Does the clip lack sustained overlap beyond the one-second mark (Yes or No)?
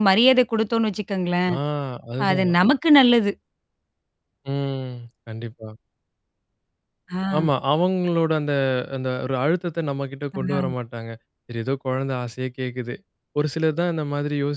Yes